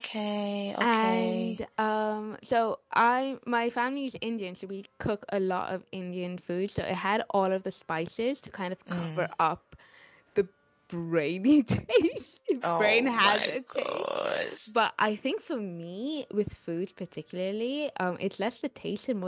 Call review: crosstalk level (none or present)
present